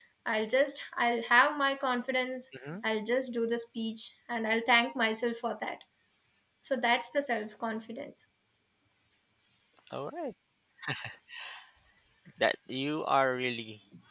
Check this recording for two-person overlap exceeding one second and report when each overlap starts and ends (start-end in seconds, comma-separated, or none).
none